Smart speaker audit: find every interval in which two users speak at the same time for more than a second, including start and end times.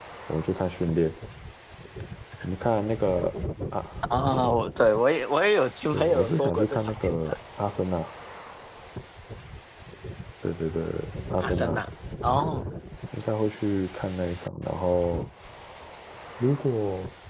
5.9-7.4

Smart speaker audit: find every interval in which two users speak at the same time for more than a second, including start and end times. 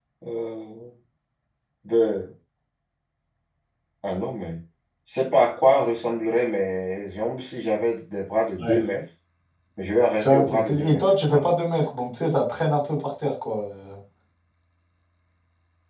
10.2-11.5

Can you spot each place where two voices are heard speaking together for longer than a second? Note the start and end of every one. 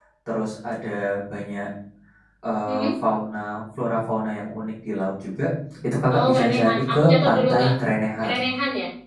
6.1-7.7

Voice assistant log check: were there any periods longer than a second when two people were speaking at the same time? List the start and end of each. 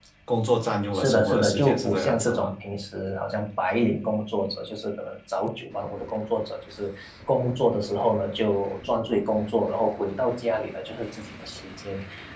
0.9-2.5

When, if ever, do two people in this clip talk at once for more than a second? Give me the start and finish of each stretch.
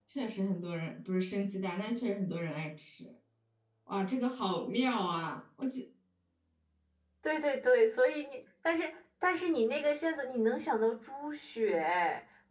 none

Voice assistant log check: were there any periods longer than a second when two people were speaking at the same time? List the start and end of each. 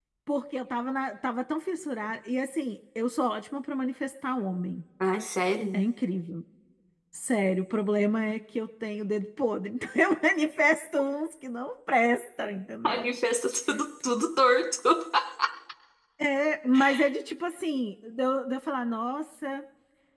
none

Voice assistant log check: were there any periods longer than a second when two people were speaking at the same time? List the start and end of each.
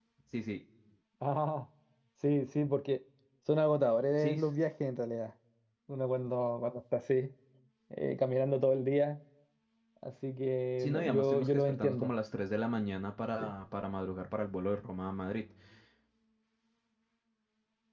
10.8-12.1

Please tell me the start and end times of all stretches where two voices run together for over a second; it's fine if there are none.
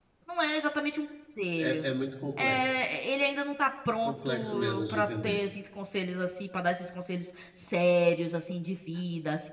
4.0-5.4

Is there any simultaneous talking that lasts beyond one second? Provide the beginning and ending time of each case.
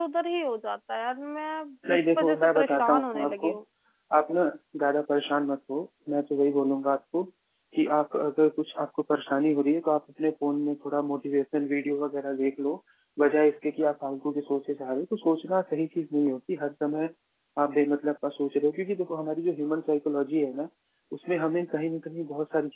1.9-3.6

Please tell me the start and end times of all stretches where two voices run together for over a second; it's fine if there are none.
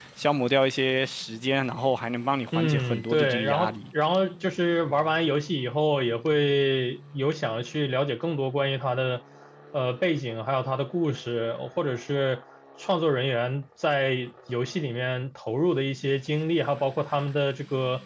2.5-3.8

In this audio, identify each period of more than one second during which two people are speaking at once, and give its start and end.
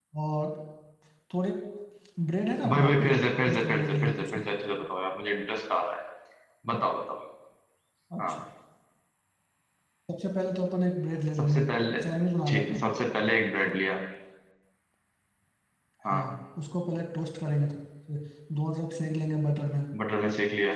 2.7-4.4

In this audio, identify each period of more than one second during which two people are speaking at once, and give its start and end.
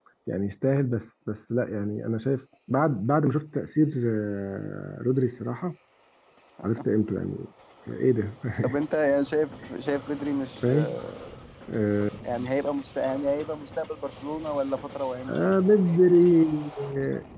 none

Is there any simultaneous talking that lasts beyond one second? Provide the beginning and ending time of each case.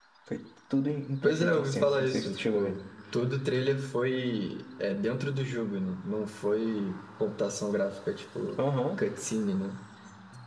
1.2-2.7

